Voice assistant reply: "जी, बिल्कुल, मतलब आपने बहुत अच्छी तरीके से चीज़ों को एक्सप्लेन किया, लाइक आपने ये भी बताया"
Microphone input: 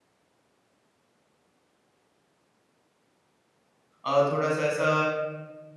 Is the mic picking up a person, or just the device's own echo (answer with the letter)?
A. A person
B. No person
A